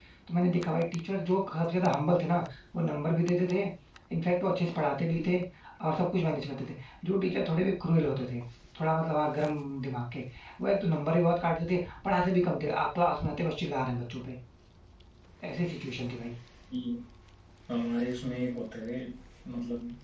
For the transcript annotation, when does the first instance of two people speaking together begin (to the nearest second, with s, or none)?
none